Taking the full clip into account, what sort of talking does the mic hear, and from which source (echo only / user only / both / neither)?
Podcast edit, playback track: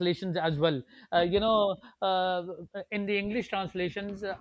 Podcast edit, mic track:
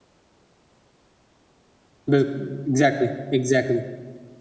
user only